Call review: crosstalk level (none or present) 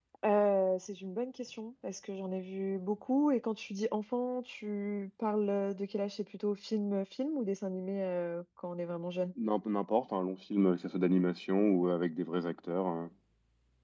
none